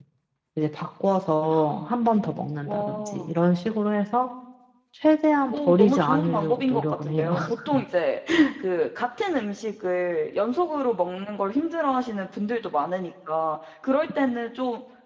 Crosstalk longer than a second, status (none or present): present